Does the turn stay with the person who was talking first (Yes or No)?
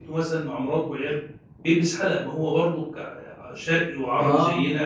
Yes